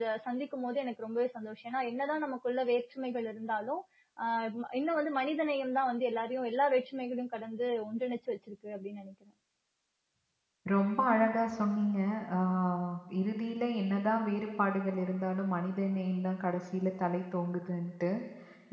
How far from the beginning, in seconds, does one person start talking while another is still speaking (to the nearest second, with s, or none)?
none